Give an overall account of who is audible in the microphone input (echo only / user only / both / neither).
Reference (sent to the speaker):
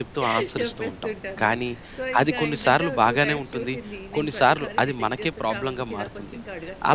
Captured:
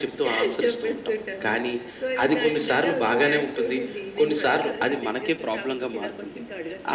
echo only